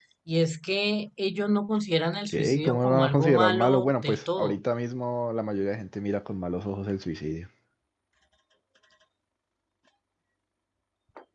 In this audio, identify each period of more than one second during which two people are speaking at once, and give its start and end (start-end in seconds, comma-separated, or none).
2.2-4.6